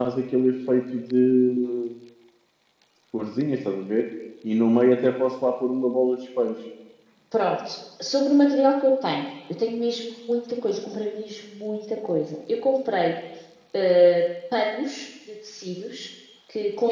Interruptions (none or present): none